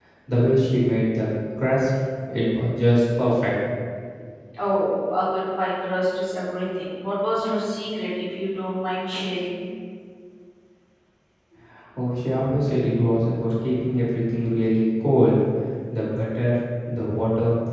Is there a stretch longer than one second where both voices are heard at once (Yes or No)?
No